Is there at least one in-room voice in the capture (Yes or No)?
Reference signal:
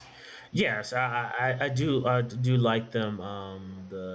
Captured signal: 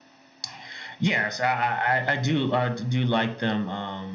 No